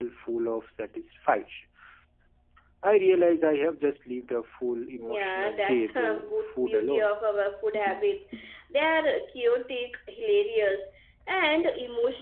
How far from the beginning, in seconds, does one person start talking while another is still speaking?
5.1 s

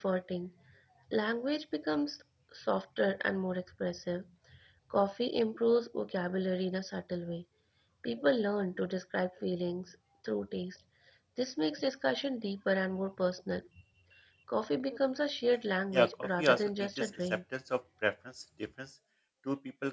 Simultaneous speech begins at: 15.9 s

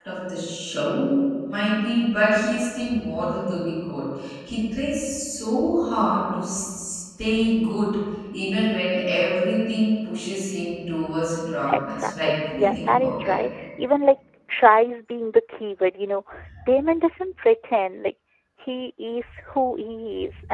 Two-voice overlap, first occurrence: 11.9 s

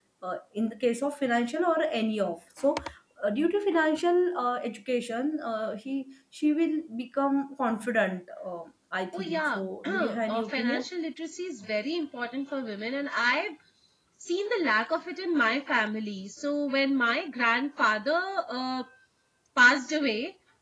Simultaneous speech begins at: 9.1 s

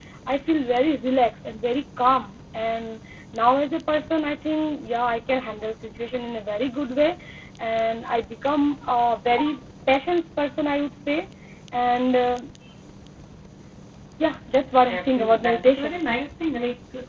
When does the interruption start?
14.6 s

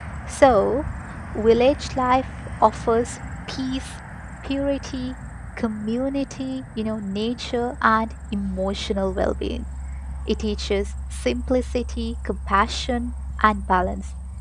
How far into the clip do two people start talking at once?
none

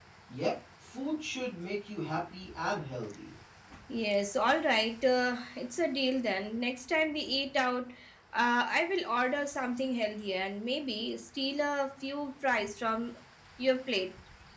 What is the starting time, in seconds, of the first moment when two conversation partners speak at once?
none

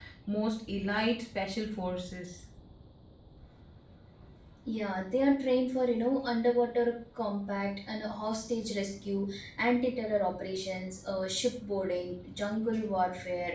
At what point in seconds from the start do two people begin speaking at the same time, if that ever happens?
none

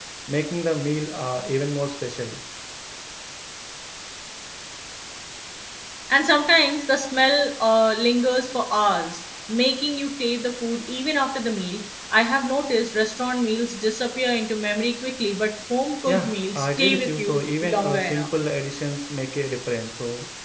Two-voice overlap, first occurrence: 16.1 s

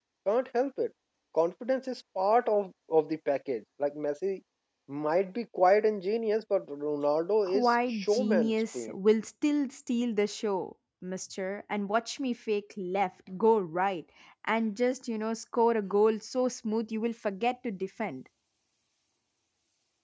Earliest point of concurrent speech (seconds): 7.5 s

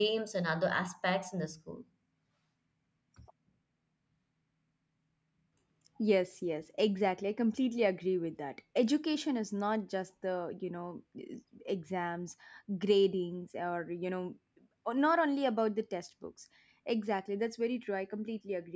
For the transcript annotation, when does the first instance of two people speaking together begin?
none

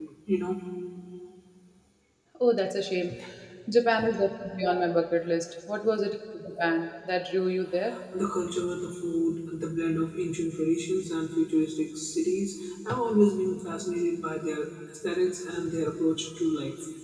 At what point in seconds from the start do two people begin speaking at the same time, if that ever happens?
none

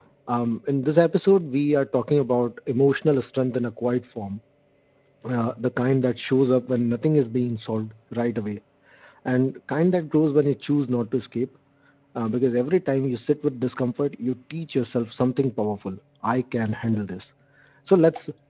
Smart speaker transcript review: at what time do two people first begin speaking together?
none

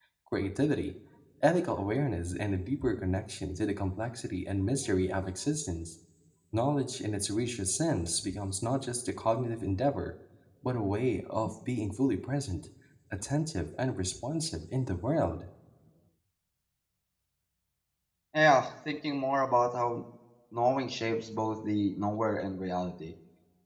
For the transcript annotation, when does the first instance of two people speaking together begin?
none

